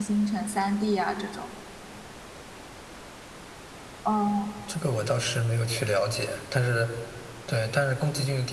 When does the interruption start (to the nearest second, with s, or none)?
none